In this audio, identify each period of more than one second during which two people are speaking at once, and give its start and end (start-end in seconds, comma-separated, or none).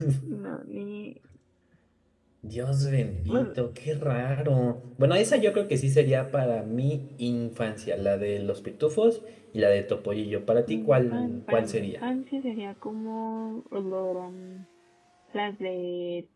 10.7-11.9